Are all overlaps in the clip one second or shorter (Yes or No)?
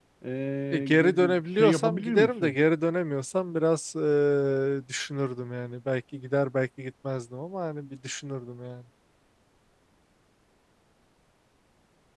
No